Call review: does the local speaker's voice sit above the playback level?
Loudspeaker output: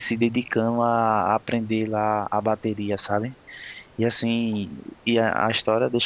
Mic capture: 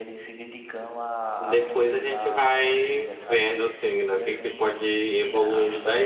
Yes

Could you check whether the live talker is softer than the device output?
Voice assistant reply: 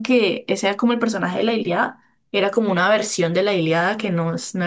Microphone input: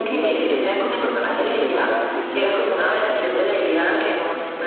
Yes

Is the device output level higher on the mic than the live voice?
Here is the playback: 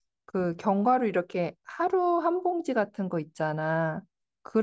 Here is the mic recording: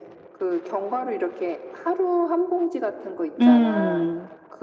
No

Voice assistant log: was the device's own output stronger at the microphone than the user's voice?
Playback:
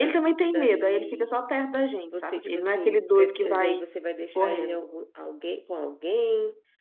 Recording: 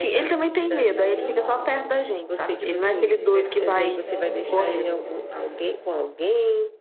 Yes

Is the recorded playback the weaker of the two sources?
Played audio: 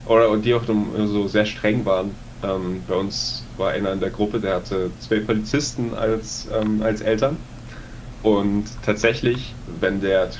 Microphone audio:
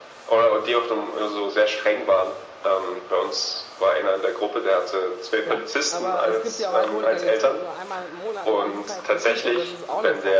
No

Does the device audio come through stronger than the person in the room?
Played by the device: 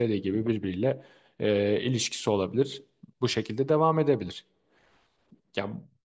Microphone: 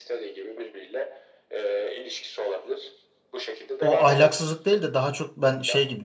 No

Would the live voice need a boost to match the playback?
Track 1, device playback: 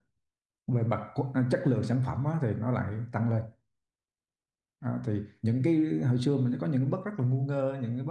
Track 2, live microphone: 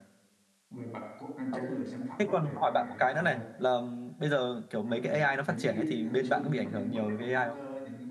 No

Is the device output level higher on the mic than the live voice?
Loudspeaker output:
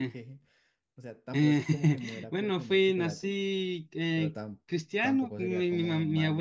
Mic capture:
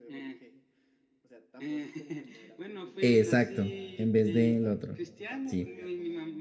No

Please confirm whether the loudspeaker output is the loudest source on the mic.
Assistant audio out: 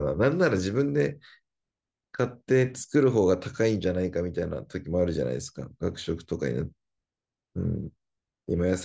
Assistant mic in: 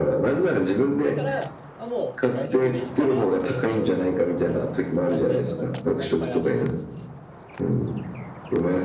Yes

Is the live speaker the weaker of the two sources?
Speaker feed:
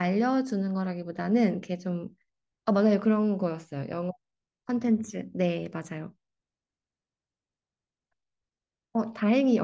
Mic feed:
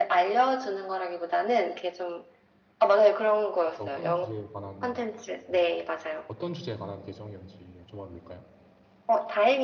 Yes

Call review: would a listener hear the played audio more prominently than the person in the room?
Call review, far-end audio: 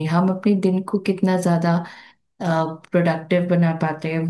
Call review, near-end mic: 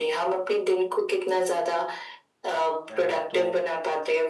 Yes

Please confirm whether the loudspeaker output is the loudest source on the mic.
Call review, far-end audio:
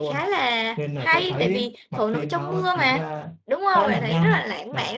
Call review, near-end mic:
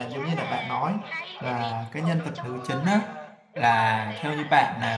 No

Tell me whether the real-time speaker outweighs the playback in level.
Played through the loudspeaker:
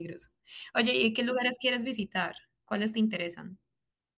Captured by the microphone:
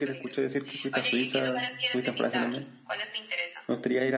Yes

